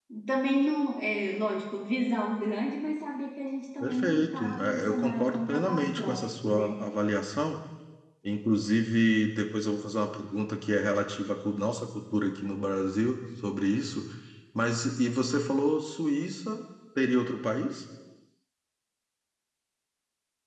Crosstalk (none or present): present